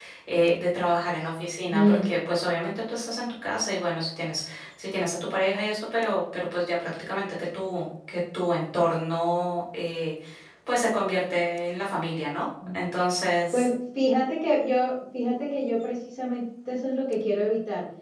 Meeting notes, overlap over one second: none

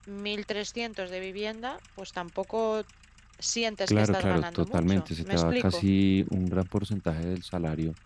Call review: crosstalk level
present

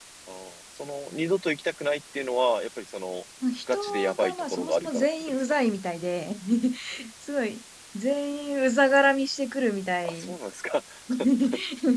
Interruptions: present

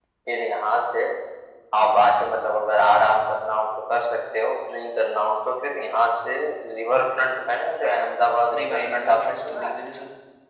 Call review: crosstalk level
present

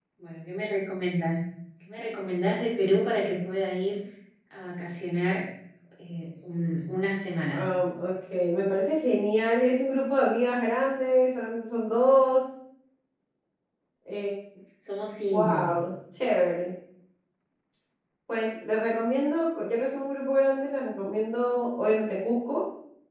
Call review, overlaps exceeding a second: none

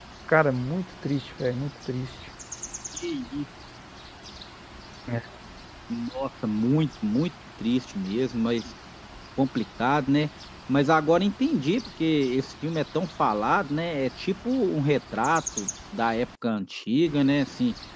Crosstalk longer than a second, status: none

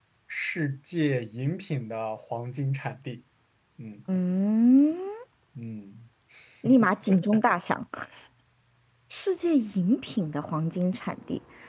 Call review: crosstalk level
none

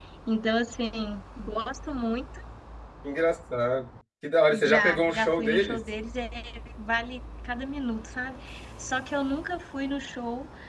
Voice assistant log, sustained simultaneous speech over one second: present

